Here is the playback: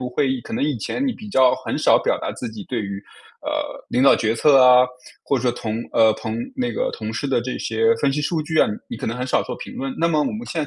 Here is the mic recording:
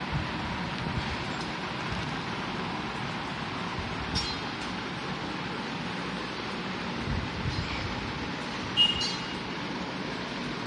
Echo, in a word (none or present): none